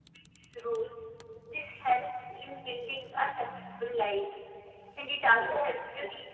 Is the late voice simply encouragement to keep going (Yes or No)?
Yes